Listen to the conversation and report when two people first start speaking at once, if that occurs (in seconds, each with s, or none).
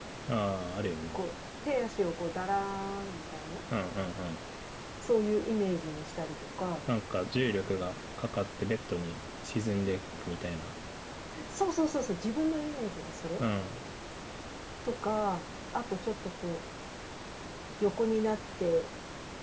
none